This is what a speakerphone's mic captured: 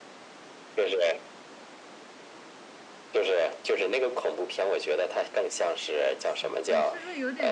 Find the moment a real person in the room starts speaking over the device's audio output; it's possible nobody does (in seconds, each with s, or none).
6.2 s